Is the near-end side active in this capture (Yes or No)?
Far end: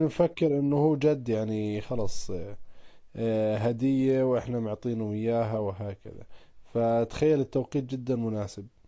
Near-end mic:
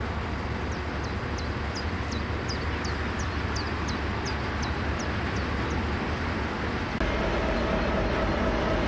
No